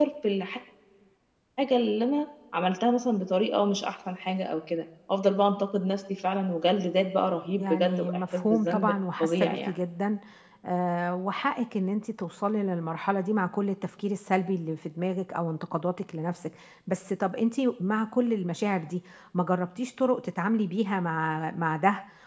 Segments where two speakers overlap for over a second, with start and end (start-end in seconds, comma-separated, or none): 7.6-9.7